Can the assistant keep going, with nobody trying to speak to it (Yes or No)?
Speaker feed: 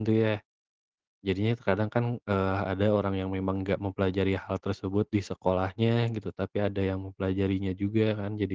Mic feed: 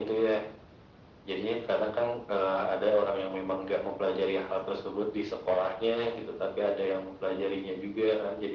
Yes